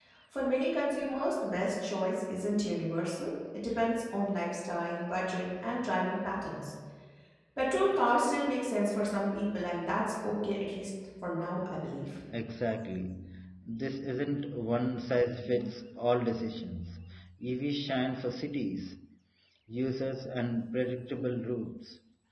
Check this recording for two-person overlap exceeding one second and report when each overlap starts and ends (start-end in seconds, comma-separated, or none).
none